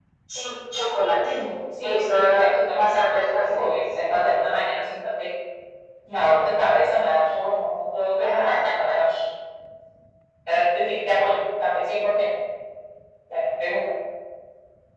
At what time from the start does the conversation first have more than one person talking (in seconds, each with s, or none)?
1.8 s